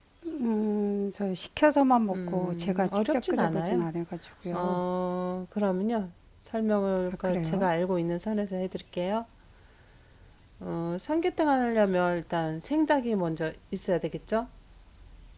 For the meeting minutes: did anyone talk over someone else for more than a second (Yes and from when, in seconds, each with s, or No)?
Yes, from 2.1 s